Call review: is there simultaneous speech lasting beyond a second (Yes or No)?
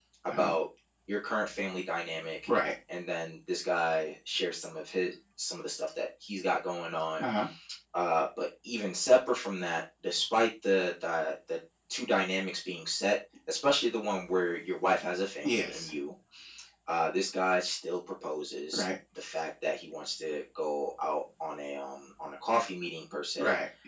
No